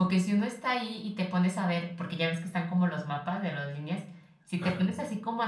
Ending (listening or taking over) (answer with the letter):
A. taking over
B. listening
B